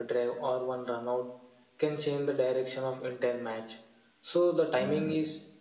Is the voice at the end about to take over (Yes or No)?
No